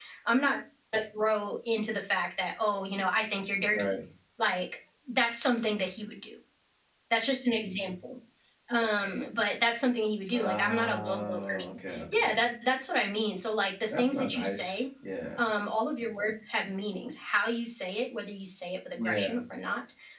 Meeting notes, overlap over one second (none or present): present